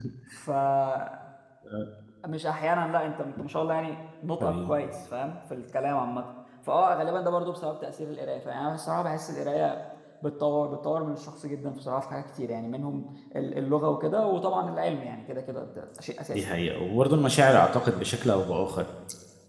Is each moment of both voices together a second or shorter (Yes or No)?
Yes